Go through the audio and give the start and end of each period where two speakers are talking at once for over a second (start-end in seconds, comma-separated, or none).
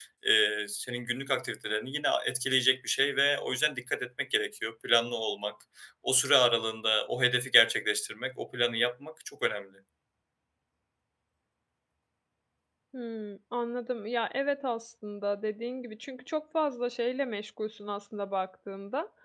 none